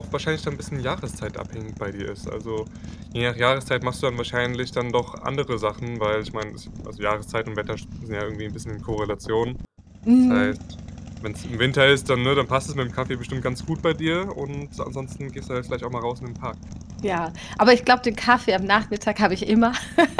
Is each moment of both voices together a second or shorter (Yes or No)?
Yes